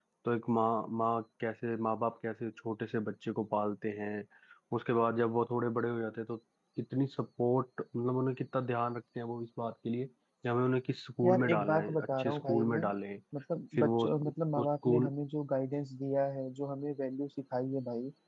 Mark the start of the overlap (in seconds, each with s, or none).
11.2 s